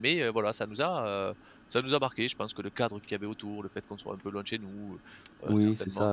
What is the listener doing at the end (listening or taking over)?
taking over